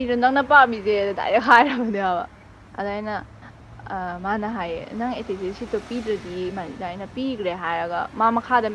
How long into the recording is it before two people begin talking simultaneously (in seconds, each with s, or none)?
none